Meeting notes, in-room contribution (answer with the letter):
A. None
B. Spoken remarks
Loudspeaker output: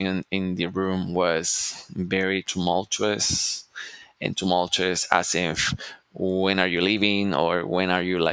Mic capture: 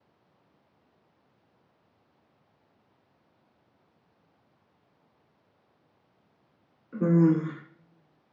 B